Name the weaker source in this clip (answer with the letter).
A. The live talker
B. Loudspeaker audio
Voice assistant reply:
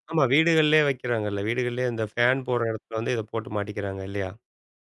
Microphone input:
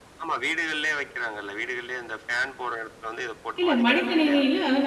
B